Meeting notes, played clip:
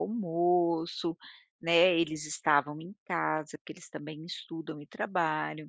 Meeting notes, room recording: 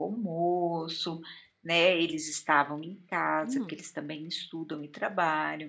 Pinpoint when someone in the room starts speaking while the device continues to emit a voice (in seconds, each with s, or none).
3.4 s